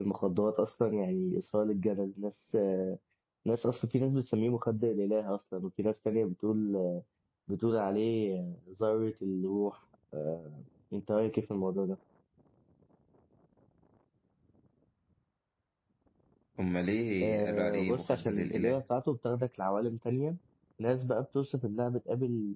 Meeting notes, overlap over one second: present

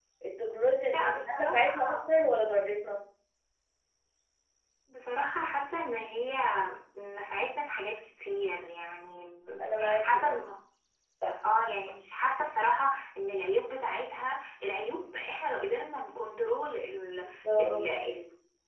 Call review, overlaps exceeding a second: present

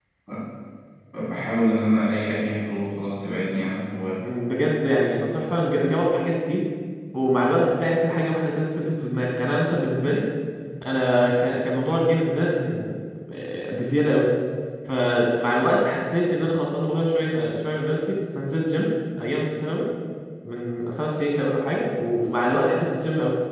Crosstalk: none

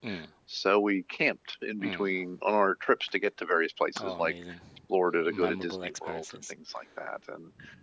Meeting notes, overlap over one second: present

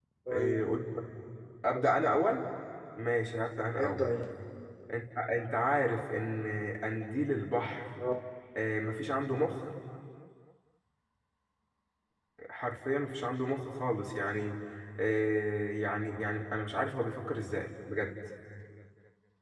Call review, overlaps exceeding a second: none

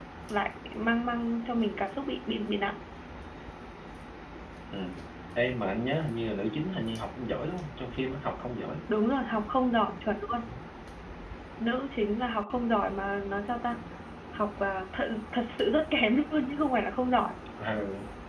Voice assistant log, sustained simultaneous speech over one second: none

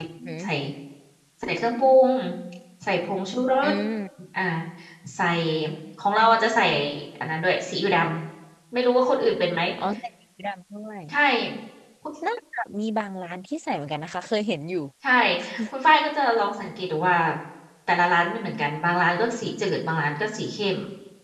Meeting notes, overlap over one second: none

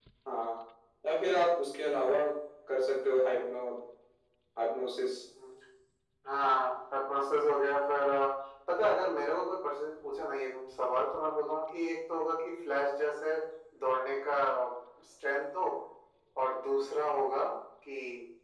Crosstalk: none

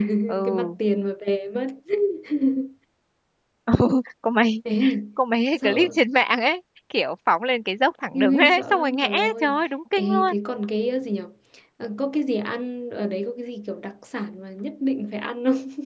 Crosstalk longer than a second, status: present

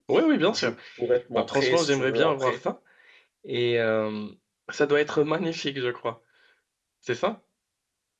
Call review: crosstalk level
present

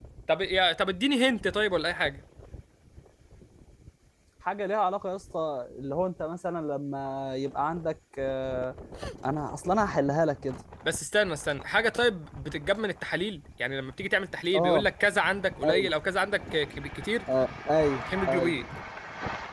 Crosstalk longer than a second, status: none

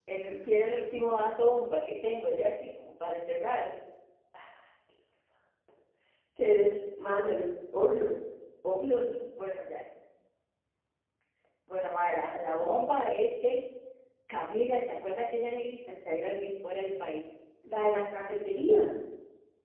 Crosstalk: none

